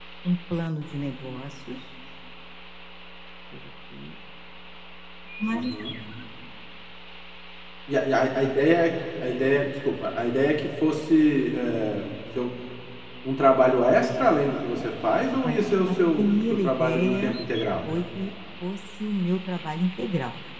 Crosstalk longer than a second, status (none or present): present